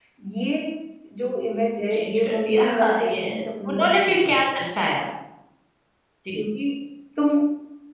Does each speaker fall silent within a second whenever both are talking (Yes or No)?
No